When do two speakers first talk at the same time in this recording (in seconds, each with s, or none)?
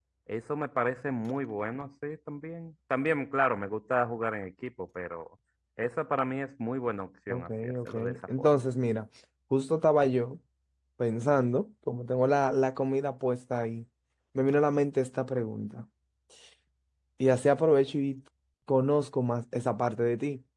7.3 s